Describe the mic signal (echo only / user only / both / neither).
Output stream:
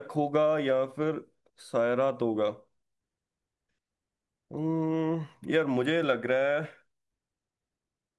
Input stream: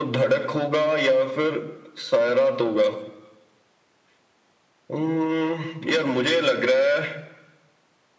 echo only